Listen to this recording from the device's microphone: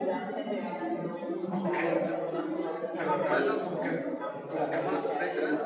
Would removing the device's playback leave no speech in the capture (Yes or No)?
No